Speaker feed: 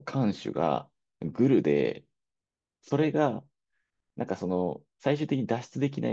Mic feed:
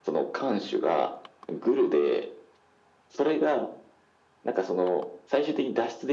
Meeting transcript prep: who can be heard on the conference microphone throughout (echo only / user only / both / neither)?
echo only